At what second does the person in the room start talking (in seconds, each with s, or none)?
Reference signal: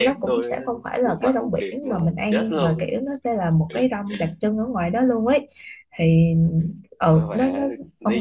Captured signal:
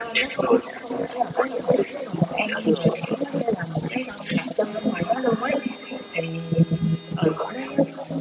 none